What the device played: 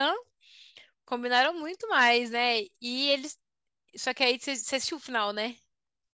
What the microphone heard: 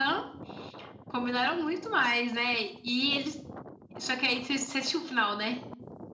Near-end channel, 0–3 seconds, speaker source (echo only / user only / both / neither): echo only